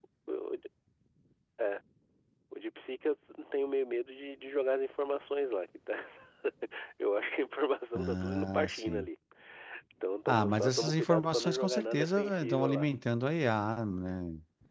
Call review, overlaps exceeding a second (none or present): present